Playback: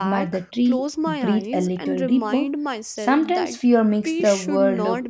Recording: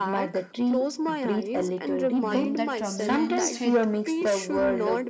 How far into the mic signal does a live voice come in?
2 s

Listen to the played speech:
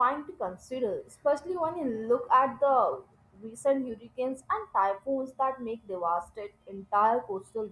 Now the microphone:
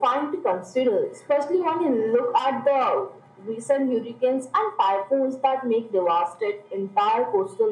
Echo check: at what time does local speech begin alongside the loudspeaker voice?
none

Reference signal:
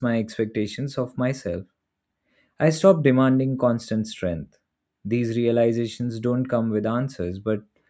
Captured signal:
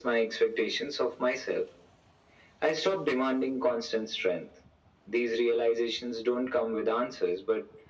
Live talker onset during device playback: none

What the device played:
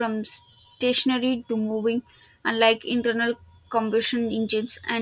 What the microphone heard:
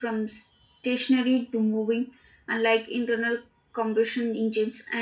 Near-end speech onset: none

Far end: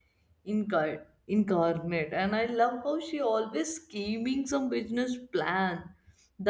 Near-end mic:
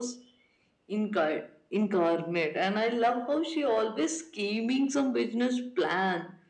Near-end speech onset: none

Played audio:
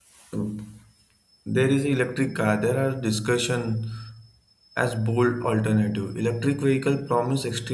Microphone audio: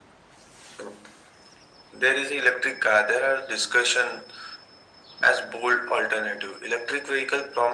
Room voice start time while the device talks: none

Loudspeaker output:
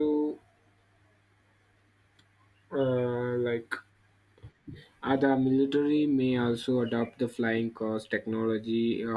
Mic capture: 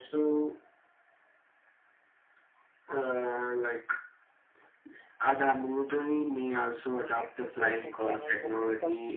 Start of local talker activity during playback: 7 s

